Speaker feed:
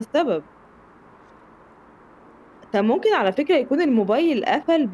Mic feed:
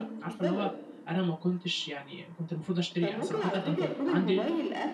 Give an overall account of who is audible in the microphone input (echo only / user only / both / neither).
both